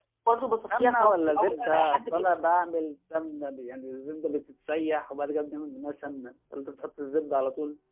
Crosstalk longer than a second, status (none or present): present